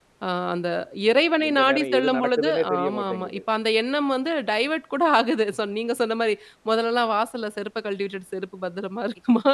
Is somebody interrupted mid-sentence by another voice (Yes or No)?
Yes